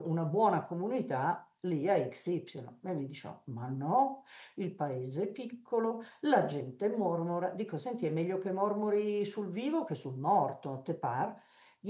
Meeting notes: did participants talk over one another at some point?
No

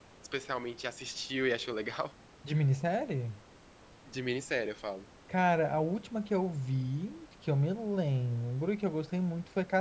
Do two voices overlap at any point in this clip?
No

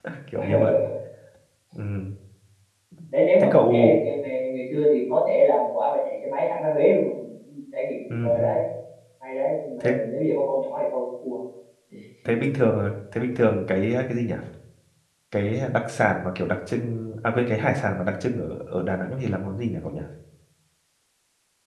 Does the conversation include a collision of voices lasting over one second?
No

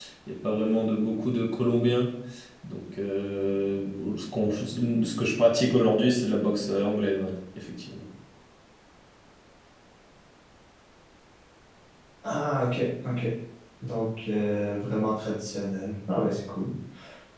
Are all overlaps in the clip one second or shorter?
Yes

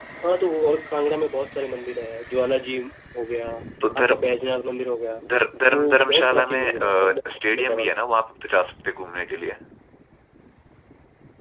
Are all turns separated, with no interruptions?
No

